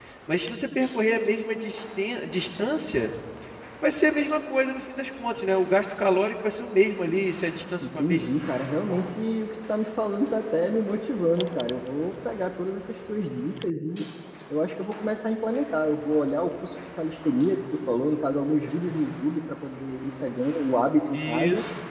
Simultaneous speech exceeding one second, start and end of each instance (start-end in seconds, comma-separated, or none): none